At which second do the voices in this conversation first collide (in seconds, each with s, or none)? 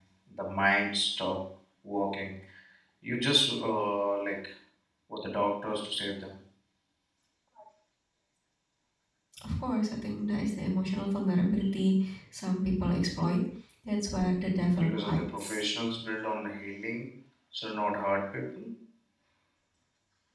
14.4 s